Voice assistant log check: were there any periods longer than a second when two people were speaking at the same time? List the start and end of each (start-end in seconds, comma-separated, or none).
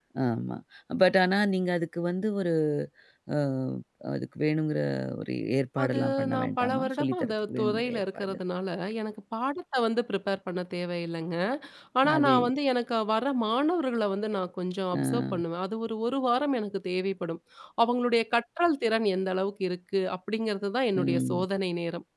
5.8-8.4